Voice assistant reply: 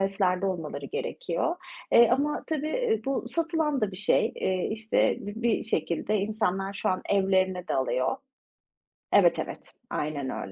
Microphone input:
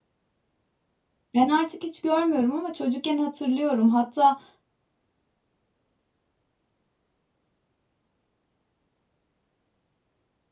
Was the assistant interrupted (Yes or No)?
Yes